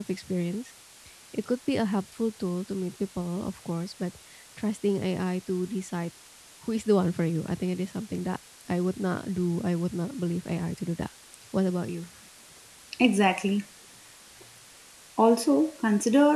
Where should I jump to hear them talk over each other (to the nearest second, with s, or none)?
none